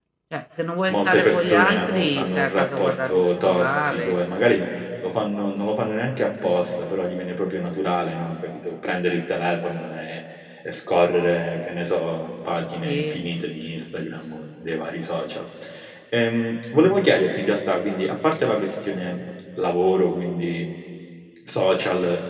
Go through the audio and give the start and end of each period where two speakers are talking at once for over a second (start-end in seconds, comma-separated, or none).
0.9-4.2